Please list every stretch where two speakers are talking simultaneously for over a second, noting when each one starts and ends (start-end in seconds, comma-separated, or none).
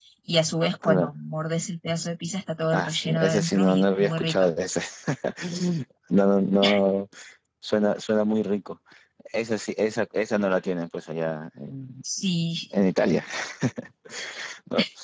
2.7-4.5